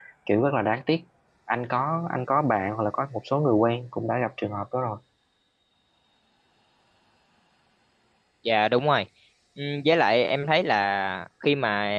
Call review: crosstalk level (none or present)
none